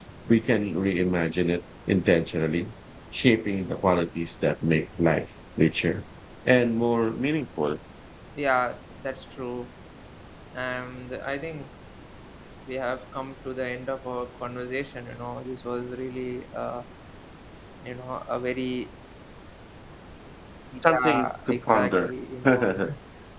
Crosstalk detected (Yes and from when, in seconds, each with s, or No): Yes, from 20.9 s